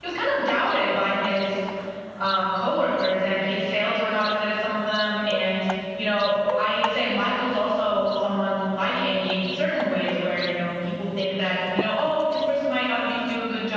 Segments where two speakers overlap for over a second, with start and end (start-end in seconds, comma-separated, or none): none